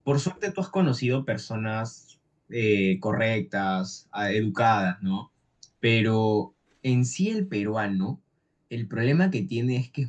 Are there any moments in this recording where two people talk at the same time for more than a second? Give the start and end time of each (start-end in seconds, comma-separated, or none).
none